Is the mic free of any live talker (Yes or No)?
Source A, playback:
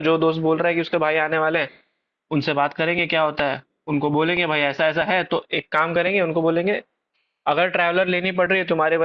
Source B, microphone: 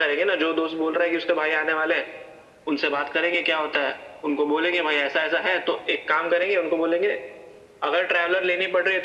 Yes